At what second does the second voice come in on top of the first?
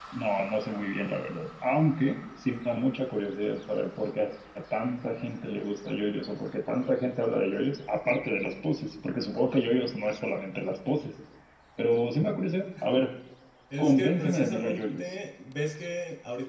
14 s

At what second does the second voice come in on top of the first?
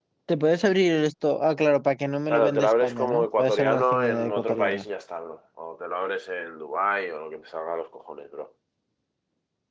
2 s

